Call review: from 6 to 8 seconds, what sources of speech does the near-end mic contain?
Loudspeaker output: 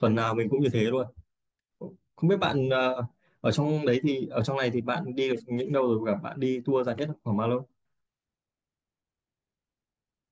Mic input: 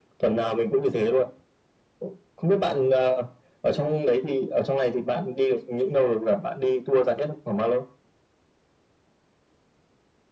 echo only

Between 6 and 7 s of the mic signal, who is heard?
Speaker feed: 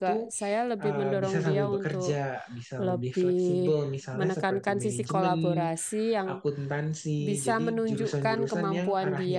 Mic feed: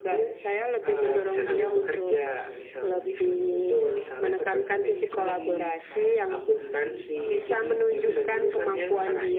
both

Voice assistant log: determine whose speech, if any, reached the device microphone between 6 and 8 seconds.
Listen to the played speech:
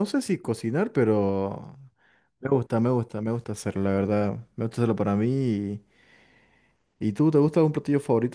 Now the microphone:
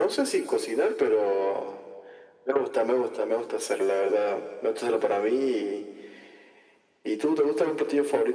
echo only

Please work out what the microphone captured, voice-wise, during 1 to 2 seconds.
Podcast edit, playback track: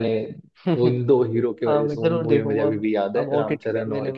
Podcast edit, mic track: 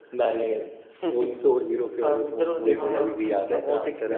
echo only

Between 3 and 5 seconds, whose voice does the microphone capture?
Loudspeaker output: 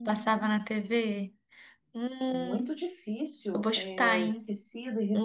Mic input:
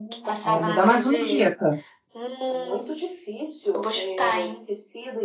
echo only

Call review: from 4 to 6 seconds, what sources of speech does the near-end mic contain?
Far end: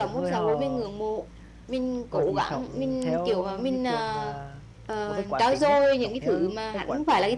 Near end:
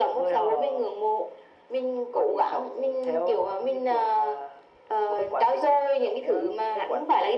echo only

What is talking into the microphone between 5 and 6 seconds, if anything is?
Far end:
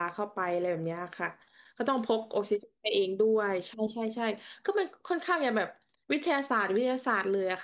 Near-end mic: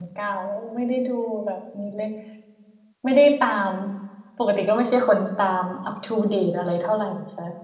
user only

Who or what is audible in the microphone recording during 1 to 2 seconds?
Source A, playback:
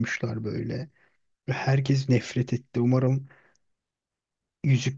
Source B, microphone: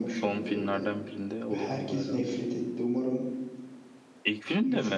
both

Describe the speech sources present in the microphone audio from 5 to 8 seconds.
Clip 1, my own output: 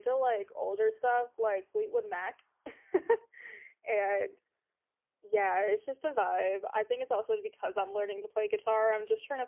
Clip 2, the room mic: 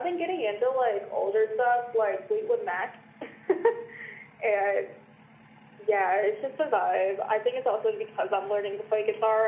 echo only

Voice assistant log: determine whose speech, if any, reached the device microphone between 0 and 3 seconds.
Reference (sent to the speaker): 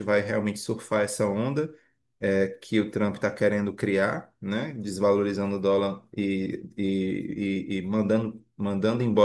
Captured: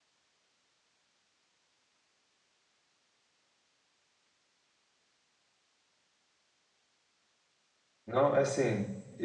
neither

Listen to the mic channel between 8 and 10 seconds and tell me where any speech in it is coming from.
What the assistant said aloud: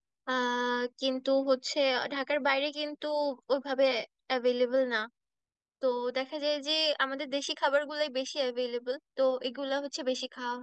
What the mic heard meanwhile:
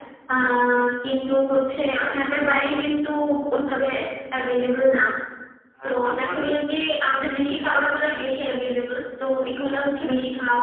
echo only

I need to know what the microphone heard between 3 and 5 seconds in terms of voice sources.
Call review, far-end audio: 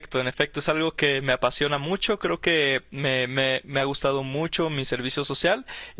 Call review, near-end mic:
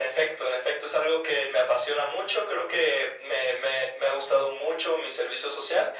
echo only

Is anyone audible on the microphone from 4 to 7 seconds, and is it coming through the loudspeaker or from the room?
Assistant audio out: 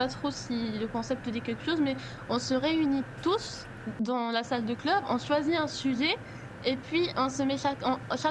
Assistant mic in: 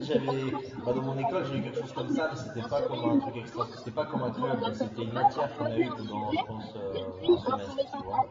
both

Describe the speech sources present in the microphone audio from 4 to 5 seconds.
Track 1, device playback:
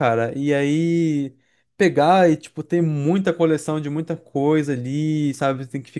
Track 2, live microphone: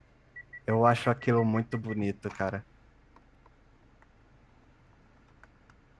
neither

